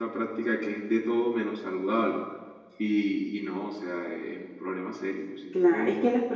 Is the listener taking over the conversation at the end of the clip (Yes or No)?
Yes